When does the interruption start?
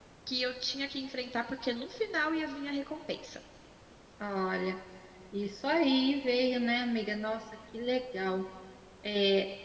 none

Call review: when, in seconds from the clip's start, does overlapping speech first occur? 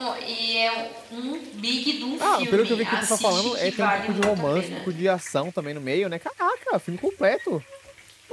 2.2 s

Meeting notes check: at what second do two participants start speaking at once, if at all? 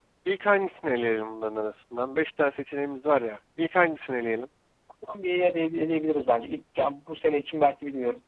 none

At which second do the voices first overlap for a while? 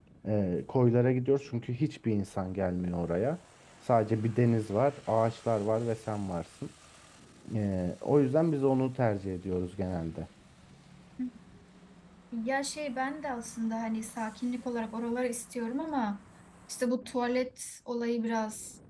none

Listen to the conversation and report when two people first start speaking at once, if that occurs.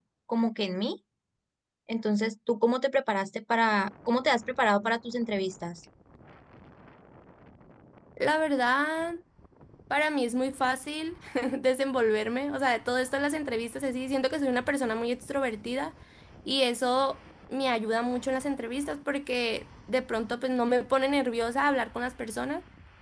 none

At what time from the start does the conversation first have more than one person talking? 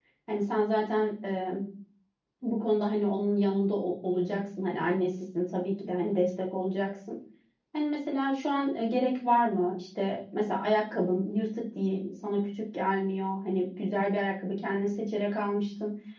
none

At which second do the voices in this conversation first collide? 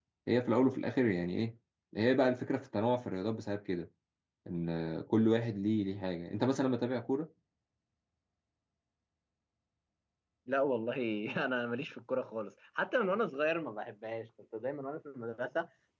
none

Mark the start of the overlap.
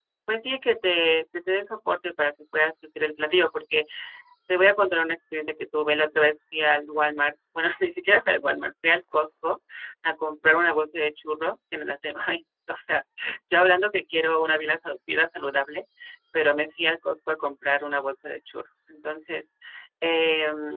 none

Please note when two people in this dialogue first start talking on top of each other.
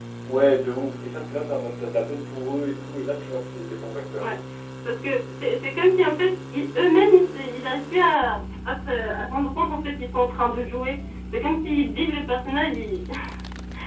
none

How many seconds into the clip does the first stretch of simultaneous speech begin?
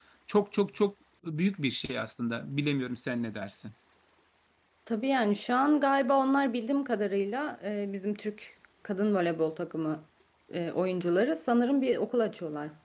none

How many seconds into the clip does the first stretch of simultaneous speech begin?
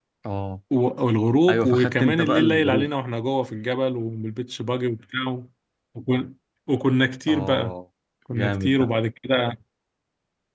1.5 s

